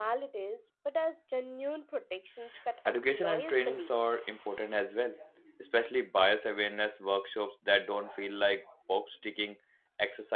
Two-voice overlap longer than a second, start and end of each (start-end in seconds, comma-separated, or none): 2.9-4.1